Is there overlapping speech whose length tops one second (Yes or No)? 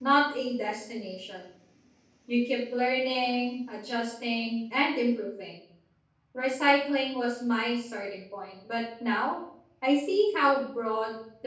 No